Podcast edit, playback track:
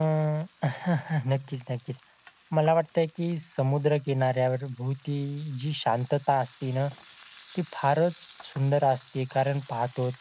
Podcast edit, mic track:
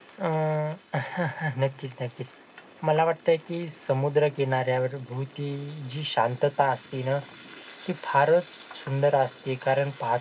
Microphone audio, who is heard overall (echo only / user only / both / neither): echo only